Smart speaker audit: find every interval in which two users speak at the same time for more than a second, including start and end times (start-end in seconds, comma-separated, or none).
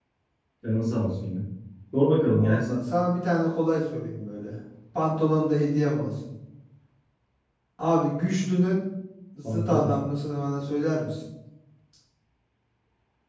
none